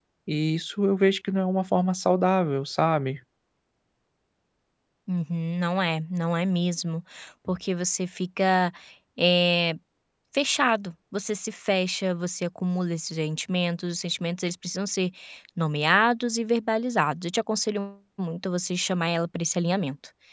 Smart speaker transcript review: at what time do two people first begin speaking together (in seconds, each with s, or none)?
none